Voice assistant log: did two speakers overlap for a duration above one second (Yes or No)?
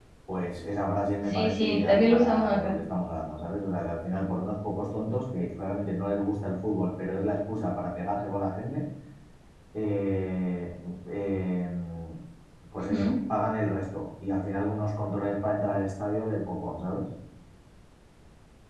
Yes